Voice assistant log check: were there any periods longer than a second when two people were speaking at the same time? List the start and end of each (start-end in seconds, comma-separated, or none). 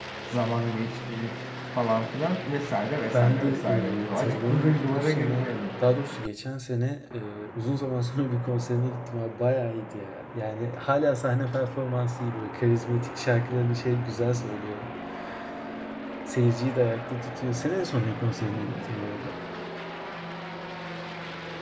3.1-5.5